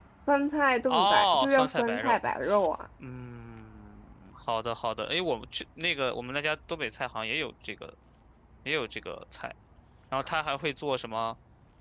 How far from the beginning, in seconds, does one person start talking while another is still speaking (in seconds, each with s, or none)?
0.9 s